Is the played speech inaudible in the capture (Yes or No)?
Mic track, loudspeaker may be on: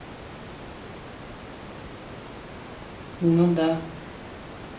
Yes